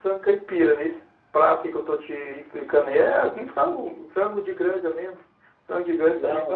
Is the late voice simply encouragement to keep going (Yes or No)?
Yes